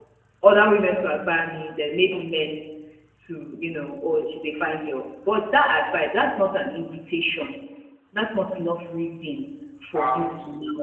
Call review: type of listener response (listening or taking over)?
taking over